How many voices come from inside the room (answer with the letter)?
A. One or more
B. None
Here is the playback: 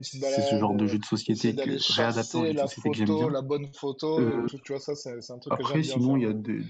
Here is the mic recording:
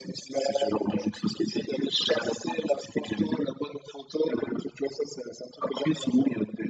B